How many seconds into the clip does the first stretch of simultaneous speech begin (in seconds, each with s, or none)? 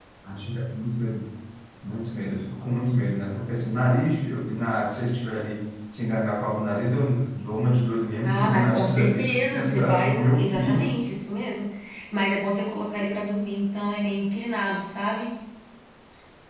8.2 s